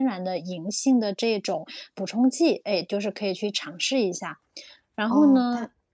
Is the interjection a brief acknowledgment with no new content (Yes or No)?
No